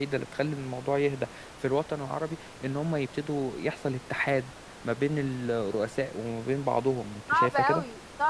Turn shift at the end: Yes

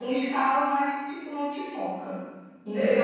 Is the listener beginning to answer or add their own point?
No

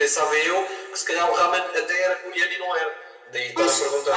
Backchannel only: No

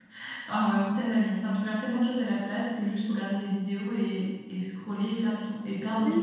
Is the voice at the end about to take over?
Yes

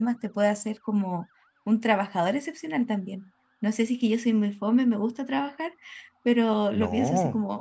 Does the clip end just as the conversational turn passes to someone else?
No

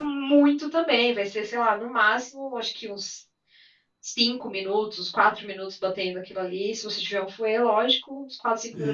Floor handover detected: Yes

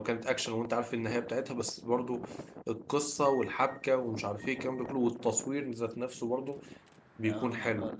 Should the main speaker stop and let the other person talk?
Yes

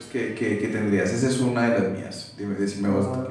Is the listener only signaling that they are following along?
No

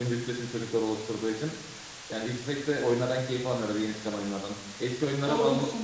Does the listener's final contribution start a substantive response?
No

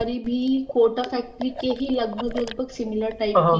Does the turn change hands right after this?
Yes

